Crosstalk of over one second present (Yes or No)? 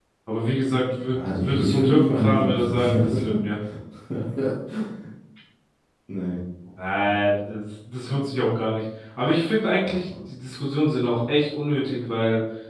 Yes